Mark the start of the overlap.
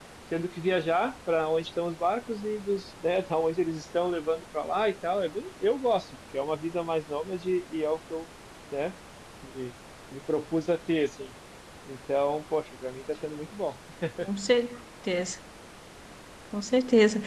none

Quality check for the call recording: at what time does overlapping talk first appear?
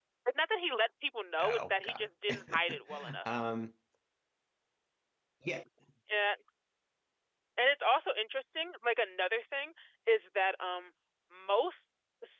1 s

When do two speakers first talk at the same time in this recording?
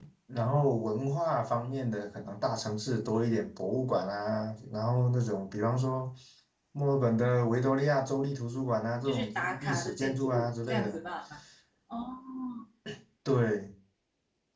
9 s

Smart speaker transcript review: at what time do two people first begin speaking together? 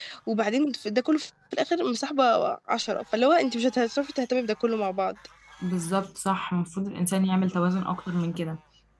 none

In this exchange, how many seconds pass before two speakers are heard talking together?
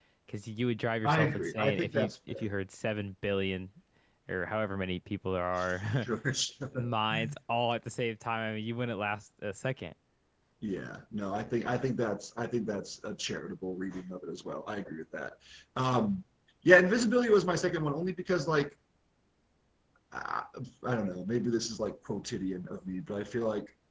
1 s

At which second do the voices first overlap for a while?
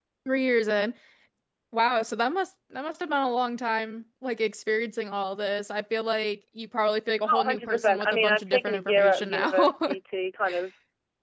7 s

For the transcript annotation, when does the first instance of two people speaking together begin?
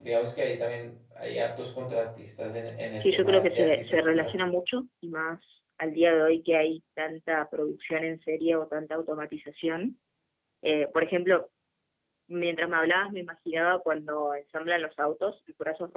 3 s

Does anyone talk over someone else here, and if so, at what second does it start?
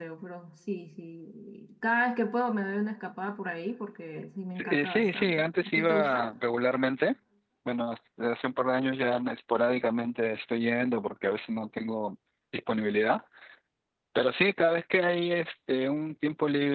5 s

